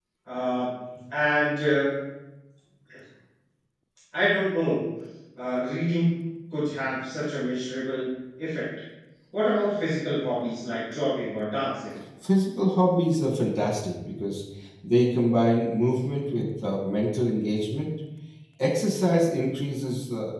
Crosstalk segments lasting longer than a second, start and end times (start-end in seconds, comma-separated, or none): none